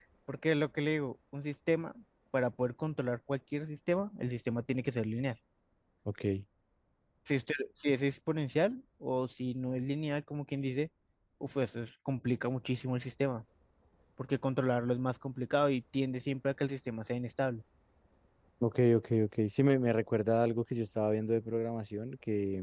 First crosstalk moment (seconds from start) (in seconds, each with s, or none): none